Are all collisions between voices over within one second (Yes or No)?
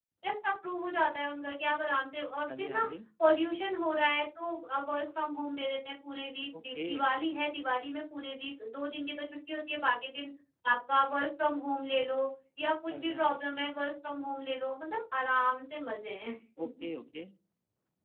Yes